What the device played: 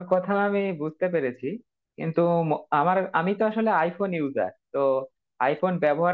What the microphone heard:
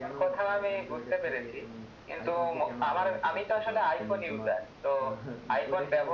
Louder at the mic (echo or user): echo